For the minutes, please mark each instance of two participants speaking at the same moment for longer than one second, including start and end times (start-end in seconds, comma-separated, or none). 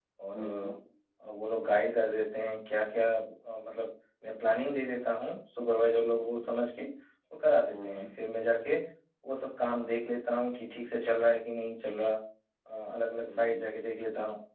none